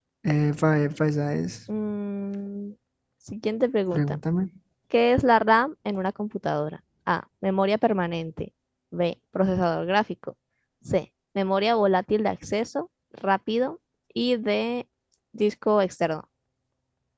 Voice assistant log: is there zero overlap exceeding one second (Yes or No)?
Yes